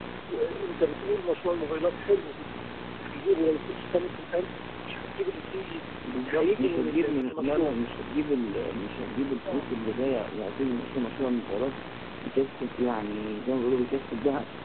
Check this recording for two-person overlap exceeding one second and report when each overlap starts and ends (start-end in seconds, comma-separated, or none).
6.2-7.7